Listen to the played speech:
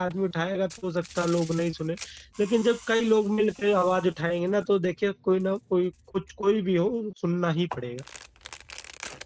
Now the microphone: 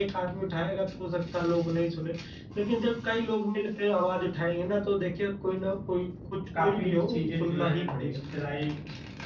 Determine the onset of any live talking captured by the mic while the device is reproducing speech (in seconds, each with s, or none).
6.5 s